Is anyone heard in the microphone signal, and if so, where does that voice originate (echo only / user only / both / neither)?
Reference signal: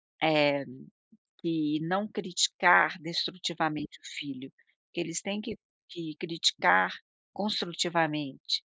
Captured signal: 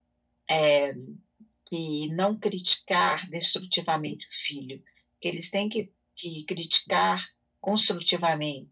echo only